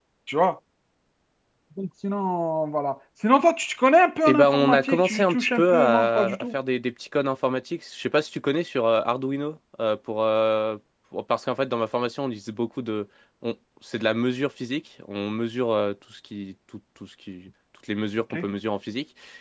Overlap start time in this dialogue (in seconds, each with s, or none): 4.2 s